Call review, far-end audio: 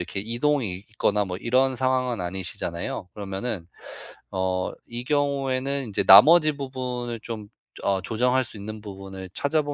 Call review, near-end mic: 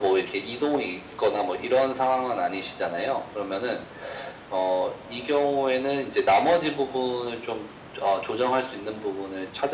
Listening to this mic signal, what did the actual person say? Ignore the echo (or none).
none